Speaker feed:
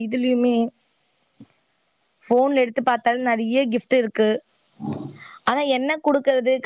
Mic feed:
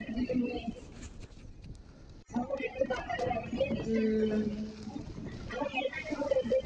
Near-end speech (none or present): present